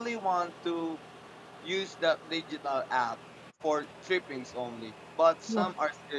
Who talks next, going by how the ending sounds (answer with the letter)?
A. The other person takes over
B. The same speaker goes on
B